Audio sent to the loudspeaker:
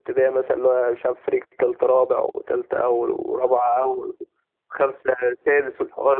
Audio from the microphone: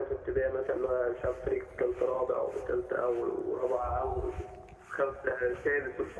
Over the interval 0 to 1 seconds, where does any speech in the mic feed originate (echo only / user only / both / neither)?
echo only